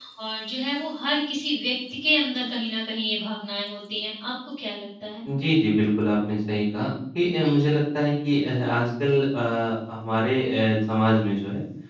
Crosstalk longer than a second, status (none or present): none